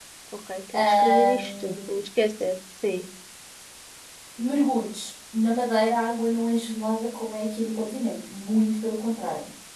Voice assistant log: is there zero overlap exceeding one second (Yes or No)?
No